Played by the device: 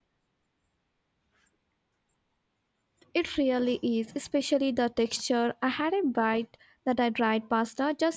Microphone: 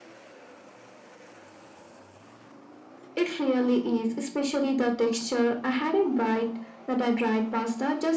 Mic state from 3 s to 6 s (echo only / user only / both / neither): echo only